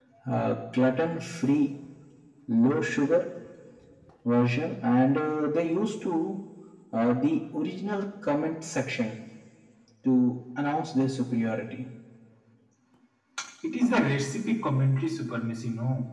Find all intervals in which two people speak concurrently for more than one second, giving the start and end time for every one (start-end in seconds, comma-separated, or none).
none